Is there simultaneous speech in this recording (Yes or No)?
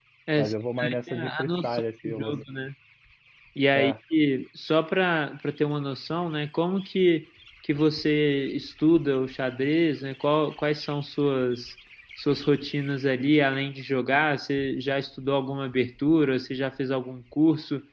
Yes